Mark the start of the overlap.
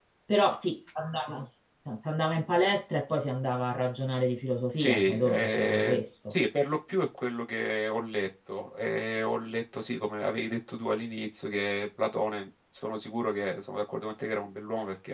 5 s

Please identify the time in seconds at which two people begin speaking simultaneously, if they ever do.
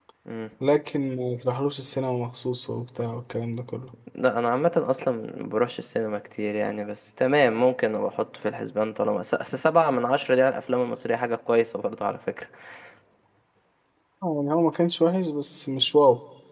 none

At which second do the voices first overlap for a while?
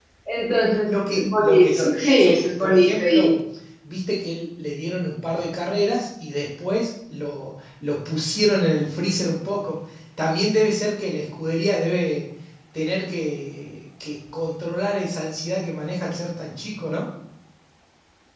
1 s

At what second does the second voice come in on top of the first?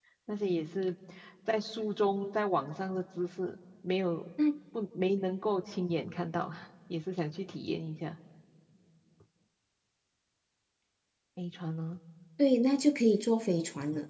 none

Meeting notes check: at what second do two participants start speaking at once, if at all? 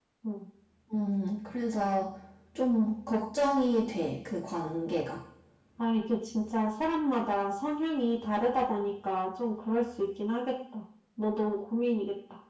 none

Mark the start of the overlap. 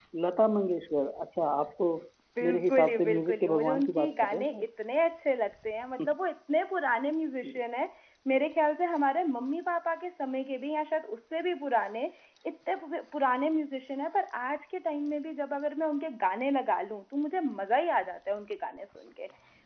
2 s

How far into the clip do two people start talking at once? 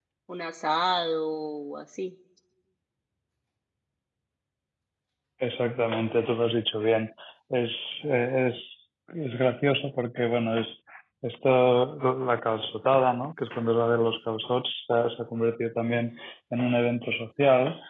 none

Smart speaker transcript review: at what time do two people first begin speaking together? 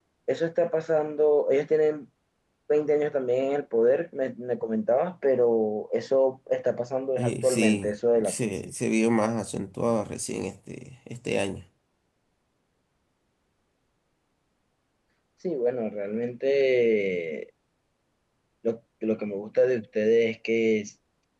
7 s

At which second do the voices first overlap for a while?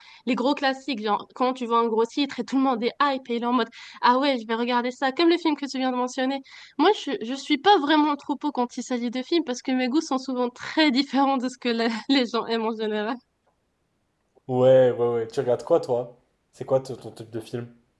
none

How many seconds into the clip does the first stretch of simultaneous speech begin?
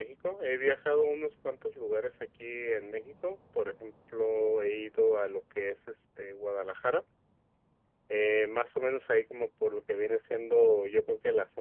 none

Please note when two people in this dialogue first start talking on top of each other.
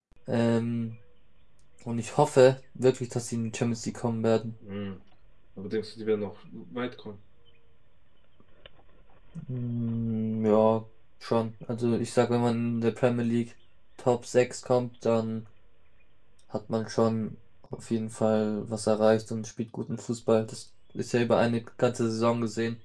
none

